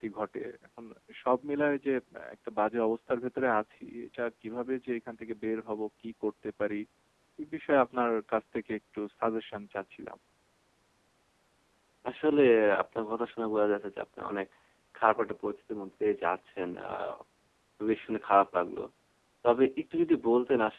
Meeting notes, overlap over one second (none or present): none